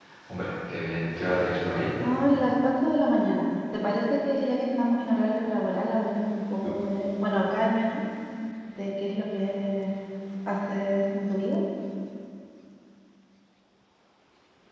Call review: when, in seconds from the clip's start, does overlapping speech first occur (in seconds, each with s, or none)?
none